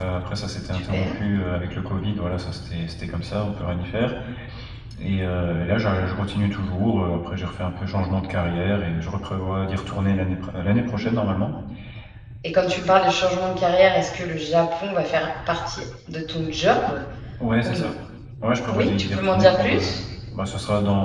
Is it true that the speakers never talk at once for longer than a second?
No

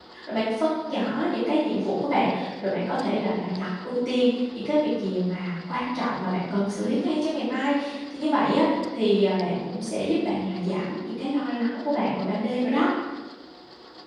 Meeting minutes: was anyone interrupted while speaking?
No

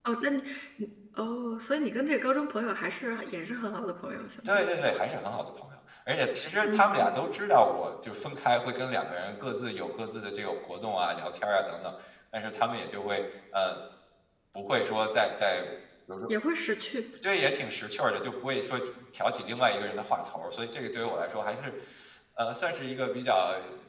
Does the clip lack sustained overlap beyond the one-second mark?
Yes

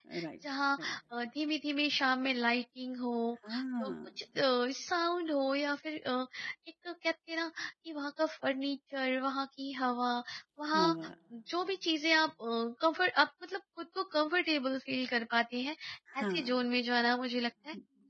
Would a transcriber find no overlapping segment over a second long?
Yes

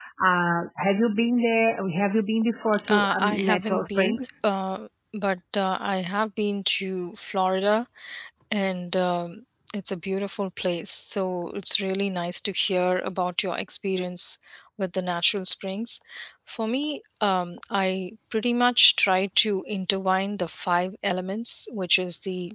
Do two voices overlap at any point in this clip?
Yes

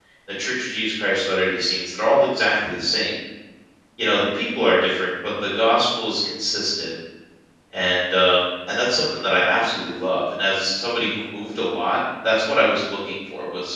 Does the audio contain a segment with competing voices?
No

